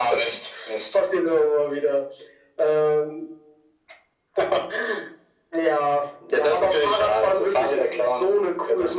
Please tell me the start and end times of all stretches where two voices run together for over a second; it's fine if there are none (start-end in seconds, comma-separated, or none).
6.3-8.2